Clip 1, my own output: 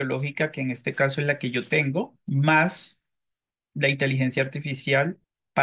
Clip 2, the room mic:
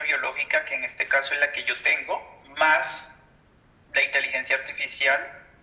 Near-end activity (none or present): none